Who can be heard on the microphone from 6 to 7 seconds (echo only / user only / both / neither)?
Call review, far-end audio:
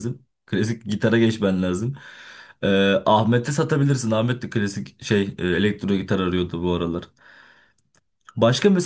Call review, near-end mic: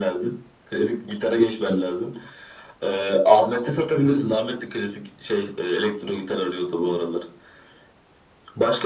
echo only